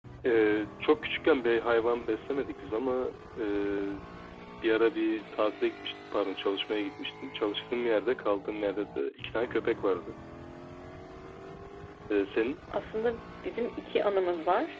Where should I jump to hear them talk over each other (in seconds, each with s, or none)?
none